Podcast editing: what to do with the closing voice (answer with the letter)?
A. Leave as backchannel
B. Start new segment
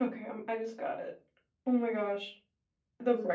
A